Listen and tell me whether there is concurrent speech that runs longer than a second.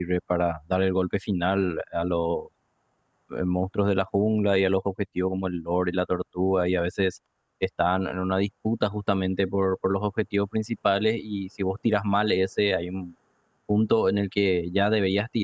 No

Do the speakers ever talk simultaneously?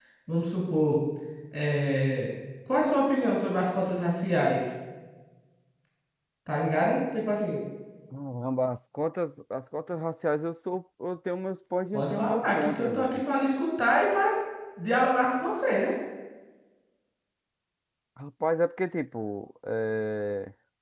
Yes, from 11.9 s

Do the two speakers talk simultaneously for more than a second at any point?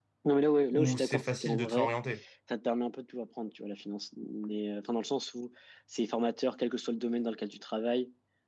Yes, from 0.7 s

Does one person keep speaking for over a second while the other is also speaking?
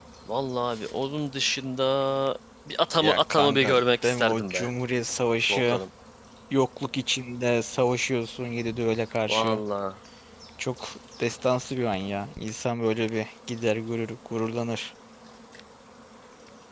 Yes, from 2.9 s

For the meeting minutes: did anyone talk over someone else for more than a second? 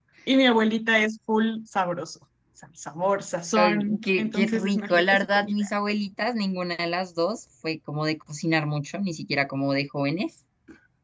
Yes, from 3.5 s

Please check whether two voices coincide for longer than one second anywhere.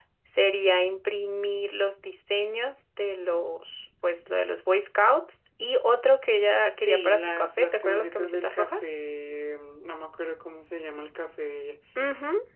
Yes, from 6.8 s

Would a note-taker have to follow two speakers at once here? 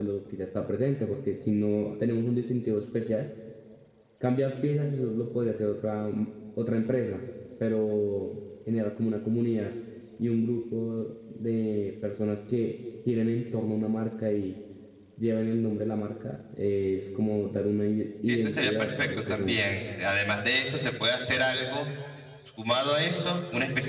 Yes, from 18.3 s

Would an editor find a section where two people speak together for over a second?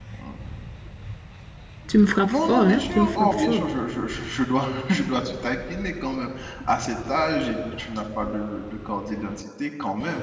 Yes, from 2.3 s

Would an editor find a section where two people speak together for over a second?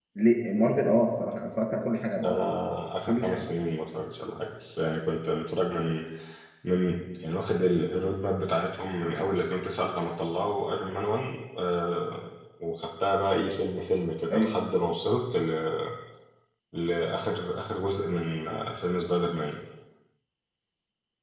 No

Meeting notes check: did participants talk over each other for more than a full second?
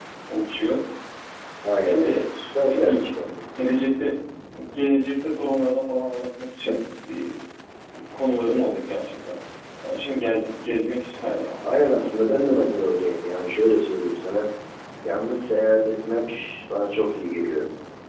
No

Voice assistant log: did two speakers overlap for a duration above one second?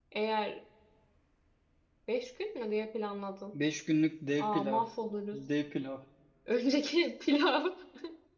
No

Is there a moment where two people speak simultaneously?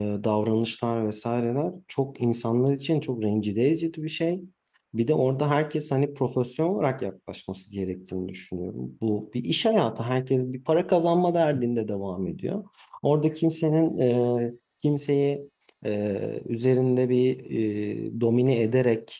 No

